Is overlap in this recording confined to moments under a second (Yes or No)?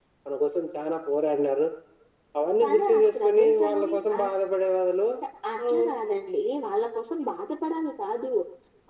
No